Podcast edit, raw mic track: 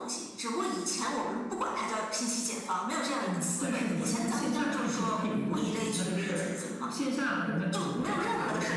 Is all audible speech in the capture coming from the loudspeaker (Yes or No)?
Yes